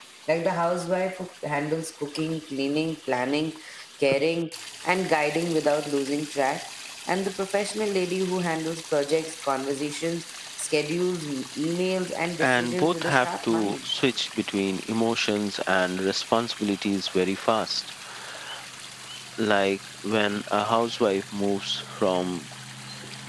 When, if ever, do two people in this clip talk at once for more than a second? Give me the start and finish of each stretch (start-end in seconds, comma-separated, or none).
12.4-13.8